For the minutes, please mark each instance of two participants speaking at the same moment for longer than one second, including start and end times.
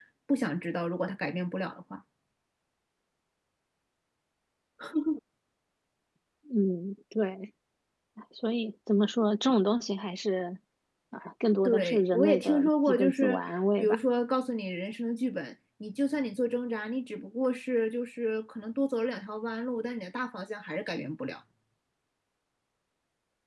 11.6-13.4

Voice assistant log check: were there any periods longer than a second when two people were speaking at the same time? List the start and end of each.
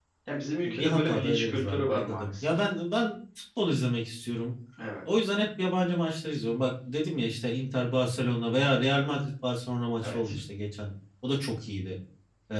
0.7-2.6

